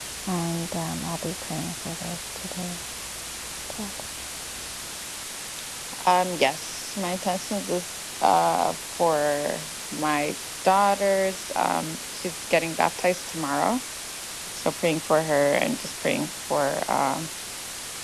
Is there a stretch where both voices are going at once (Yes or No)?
No